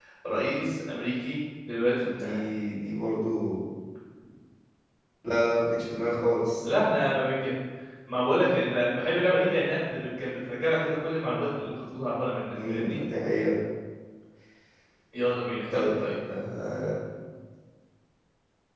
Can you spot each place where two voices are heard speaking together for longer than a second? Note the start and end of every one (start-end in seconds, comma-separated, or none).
none